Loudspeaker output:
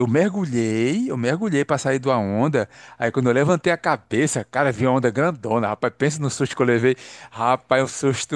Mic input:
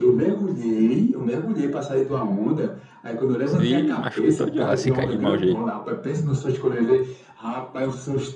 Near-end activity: present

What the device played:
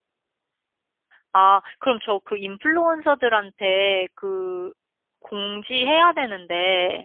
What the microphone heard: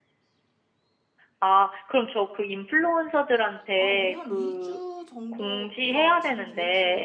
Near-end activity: present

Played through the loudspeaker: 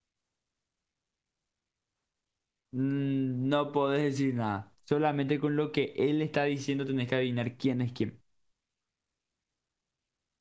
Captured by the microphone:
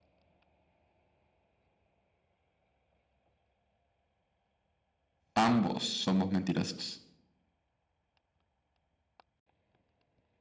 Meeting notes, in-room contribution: present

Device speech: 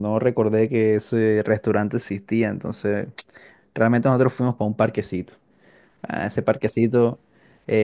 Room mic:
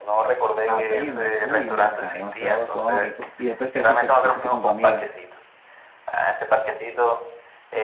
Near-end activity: present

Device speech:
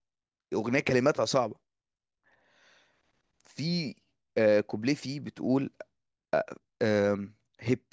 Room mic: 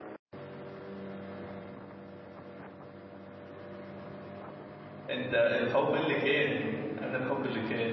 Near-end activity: present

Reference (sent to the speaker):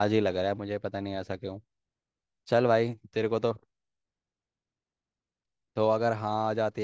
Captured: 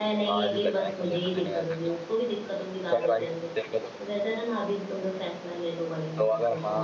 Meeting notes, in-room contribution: present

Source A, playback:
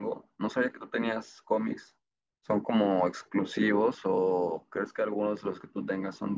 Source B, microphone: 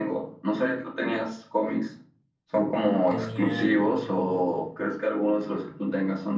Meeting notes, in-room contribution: present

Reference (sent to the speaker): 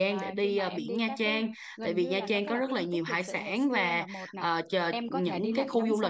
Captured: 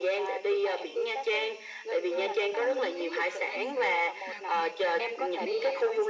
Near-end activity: present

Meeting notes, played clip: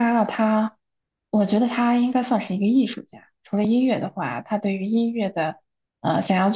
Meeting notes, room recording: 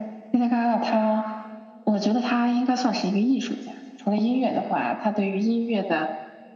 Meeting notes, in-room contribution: none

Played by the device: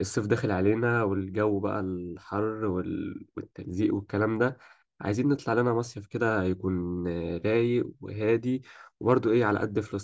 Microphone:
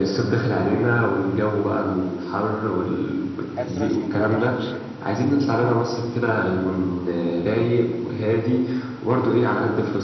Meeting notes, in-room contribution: present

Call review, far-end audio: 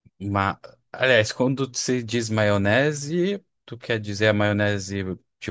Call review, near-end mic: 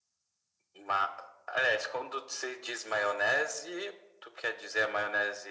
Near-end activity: none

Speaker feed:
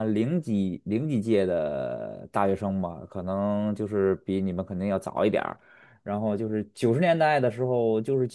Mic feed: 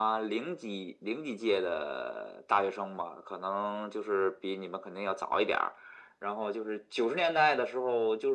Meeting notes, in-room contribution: none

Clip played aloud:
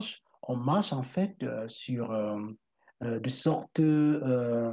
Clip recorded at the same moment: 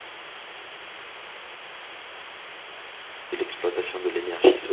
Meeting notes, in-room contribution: present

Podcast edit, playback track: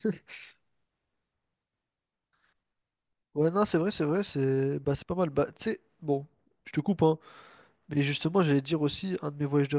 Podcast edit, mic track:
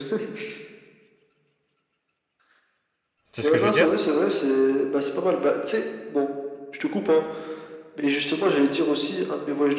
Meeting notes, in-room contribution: present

